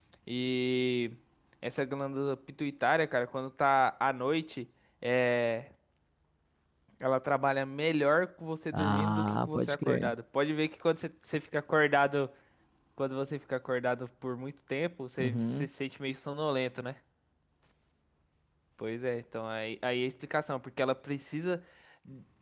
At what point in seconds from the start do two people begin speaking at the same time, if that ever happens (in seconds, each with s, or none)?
8.7 s